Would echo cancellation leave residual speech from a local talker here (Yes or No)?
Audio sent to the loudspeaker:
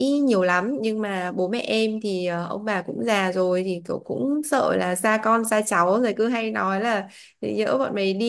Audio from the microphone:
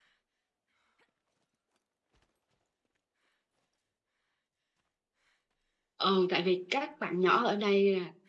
Yes